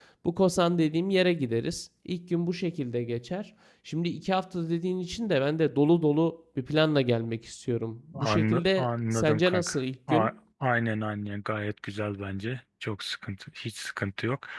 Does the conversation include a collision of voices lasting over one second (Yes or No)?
Yes